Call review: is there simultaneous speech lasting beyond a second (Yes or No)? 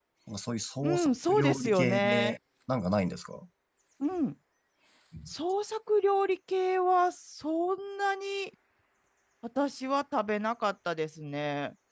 Yes